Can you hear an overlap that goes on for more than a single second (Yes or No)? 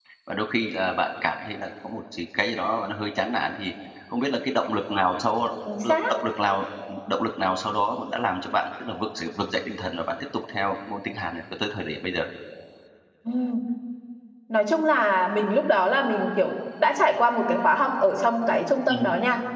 No